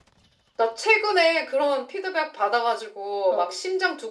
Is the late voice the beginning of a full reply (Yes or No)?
No